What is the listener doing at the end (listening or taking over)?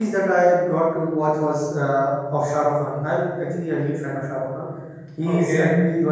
listening